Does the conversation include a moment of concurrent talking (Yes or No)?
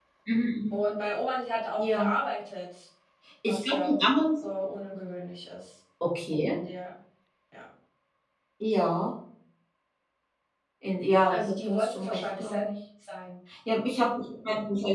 Yes